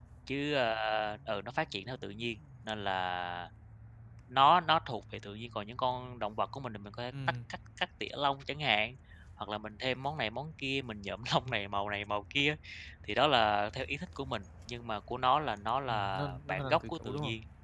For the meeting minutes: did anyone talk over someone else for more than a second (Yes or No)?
Yes